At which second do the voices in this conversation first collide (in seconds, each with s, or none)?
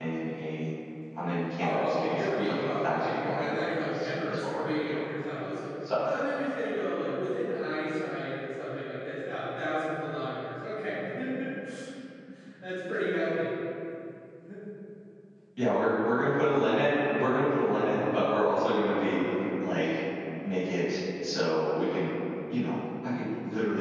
1.6 s